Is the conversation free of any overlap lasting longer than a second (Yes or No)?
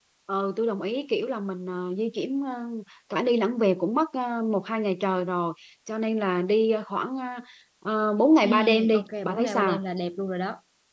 No